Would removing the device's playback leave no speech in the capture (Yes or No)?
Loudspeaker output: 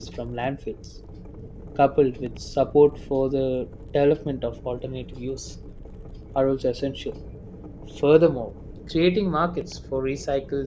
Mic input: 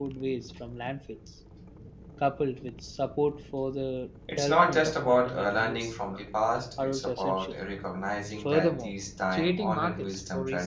No